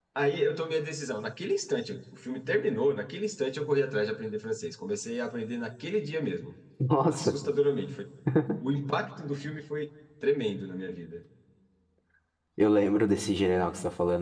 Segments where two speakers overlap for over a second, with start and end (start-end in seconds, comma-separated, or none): none